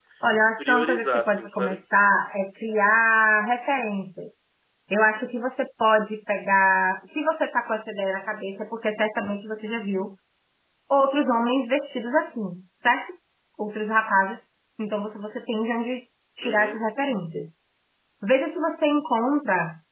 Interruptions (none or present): present